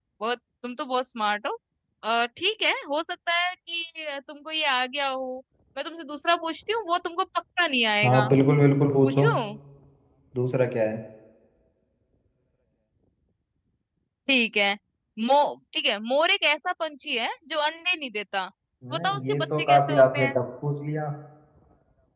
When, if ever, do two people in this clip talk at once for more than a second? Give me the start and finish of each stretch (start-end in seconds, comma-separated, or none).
18.9-20.4